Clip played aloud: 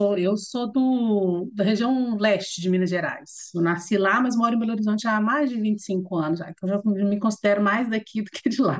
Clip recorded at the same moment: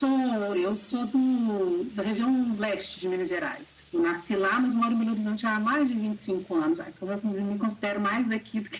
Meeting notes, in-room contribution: none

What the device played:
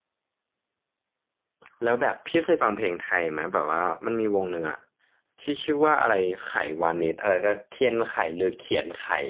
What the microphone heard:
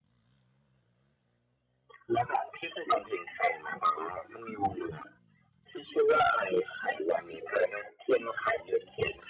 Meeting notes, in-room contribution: none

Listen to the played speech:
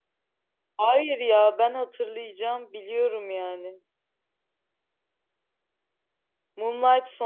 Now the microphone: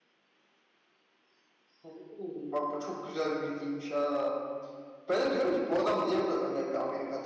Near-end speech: present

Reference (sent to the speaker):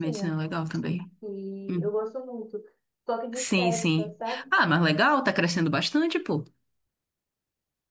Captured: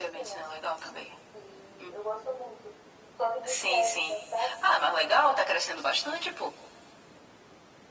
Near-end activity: none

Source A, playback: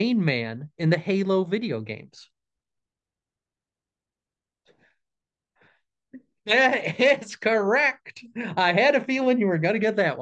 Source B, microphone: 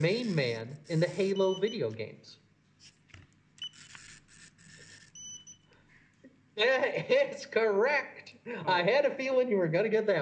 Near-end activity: present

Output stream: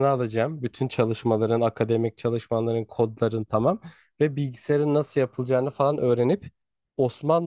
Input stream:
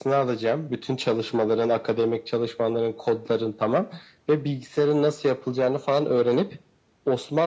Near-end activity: none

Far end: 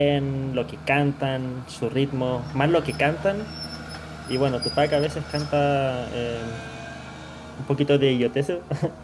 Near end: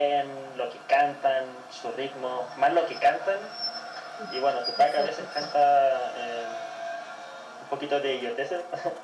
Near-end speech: present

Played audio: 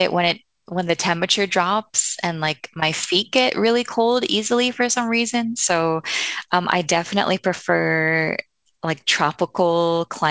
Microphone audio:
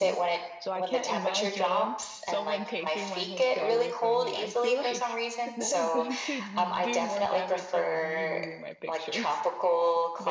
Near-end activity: present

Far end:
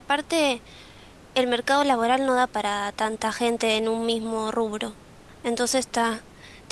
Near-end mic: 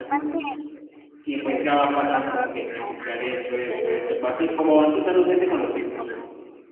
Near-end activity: present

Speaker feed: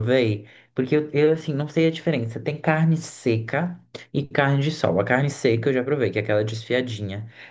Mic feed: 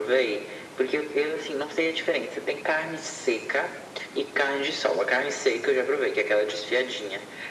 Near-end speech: none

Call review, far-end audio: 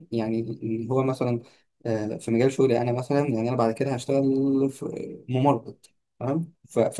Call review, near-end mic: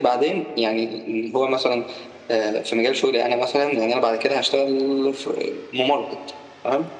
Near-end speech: none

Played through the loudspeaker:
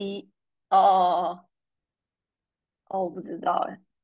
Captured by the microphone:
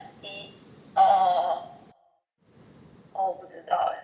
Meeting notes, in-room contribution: none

